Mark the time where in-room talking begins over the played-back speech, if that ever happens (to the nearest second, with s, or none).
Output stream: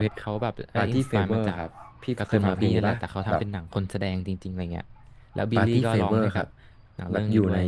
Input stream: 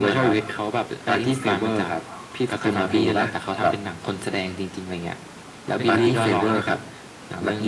6 s